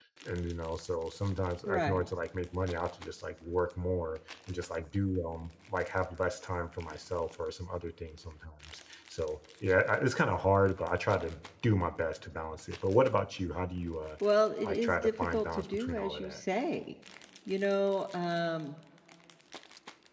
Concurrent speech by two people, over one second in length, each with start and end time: 14.6-16.4

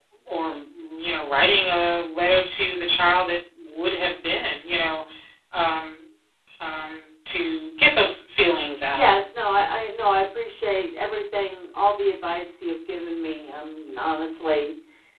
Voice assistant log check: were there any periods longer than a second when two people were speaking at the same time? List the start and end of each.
none

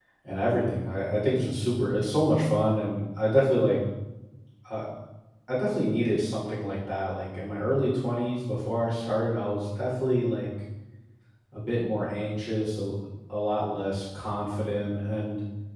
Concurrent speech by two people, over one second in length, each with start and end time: none

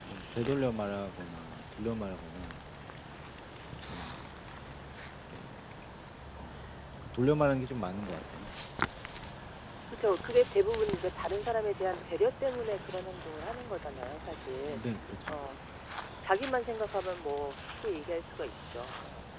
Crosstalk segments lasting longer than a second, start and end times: none

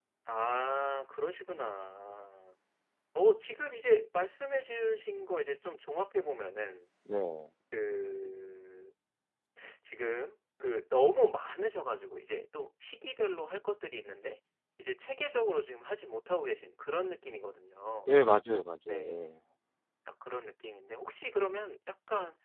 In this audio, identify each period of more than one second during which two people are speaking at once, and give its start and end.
none

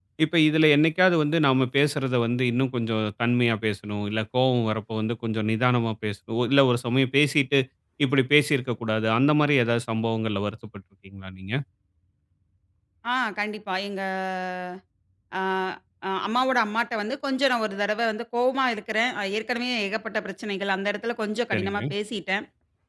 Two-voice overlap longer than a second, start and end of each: none

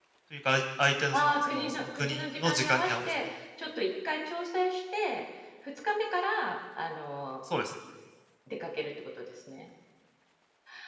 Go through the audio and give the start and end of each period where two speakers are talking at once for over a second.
1.1-3.1

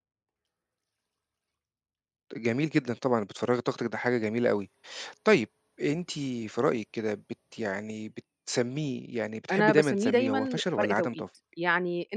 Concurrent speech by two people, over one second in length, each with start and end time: 9.5-11.2

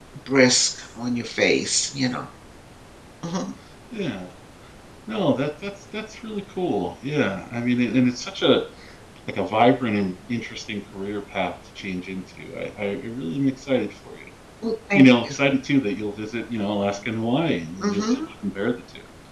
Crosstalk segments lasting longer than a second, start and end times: none

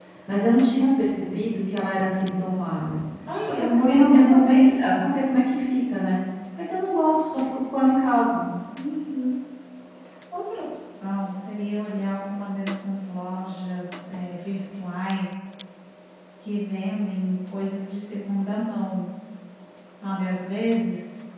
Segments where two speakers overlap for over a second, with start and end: 3.4-4.8

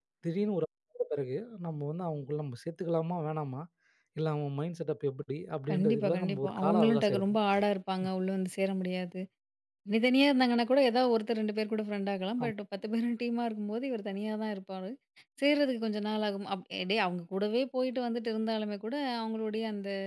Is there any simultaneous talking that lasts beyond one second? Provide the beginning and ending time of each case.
5.7-7.4

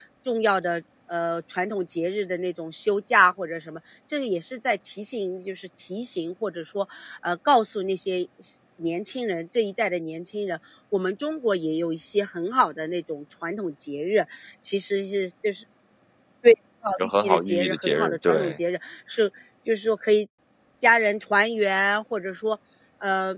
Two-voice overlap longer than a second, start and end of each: 17.0-18.6

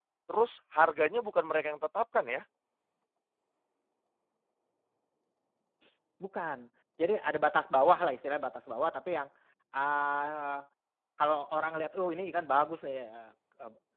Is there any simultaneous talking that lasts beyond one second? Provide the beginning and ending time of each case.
none

